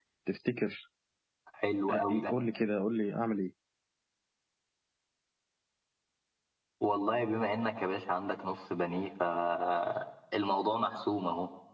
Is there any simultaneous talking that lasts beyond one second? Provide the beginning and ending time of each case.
none

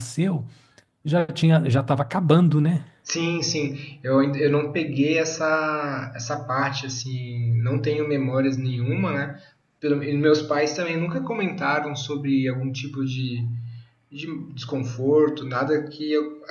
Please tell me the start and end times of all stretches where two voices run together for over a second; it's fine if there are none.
none

